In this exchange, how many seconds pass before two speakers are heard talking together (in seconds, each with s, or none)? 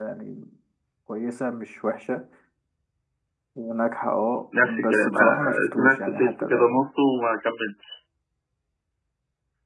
4.5 s